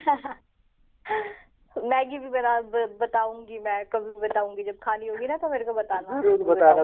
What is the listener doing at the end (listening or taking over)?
taking over